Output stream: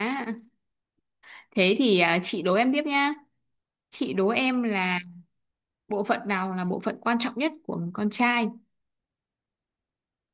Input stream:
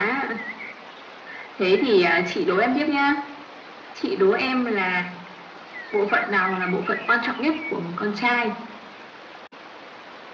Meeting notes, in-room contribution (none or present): none